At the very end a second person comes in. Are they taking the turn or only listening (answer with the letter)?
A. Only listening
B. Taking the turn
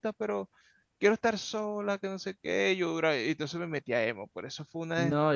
B